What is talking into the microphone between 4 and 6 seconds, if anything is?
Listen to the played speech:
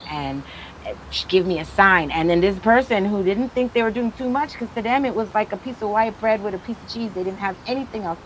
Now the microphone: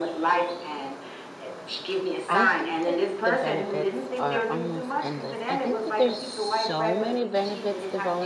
both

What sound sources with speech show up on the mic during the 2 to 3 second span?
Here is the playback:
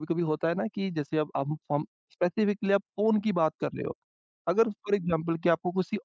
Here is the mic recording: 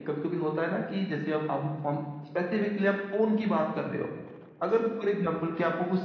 echo only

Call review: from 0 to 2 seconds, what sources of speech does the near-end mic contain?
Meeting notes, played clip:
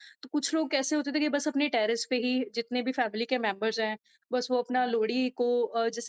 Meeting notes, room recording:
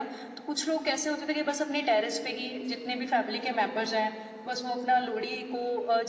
echo only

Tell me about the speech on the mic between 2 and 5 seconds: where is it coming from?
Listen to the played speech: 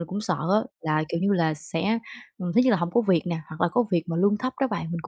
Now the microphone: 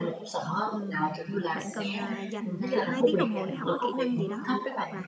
both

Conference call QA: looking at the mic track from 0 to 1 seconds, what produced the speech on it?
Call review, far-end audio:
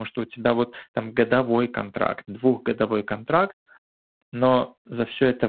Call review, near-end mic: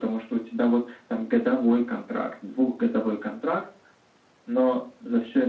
echo only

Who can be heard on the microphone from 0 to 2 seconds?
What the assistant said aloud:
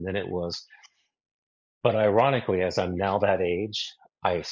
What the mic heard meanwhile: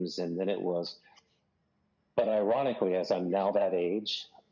echo only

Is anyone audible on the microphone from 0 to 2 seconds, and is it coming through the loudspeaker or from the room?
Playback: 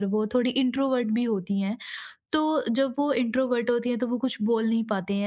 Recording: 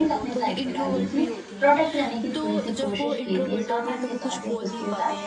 both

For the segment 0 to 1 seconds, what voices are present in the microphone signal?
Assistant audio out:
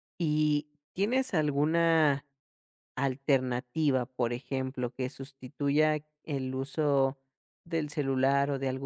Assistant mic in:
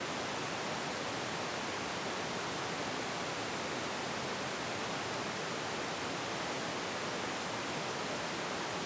neither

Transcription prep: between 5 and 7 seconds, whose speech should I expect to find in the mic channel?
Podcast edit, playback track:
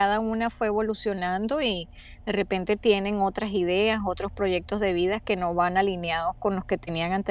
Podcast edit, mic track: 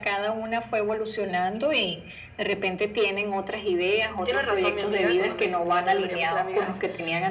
both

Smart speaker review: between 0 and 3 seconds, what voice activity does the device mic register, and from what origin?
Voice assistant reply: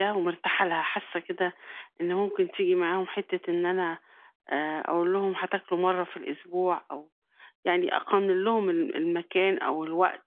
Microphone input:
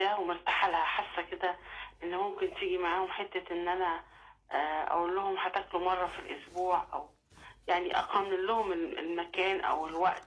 echo only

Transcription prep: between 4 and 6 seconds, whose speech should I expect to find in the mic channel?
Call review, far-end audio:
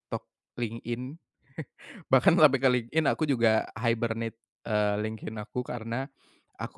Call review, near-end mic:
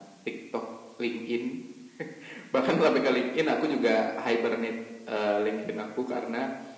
echo only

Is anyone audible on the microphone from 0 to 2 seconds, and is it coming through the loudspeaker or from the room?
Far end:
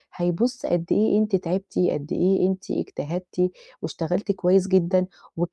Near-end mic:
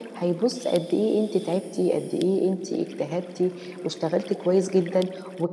echo only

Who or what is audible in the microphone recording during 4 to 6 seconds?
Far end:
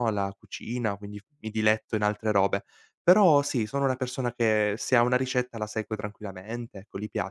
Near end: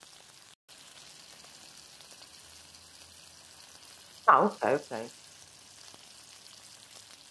user only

